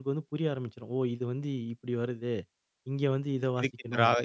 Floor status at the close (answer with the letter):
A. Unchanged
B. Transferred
B